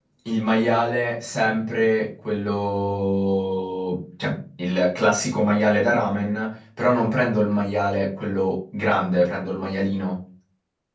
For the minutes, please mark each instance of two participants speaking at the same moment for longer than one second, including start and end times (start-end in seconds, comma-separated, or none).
none